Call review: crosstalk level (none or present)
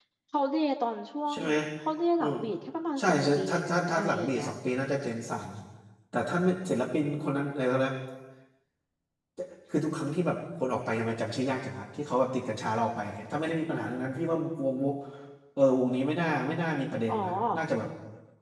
present